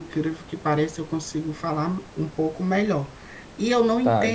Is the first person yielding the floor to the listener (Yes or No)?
No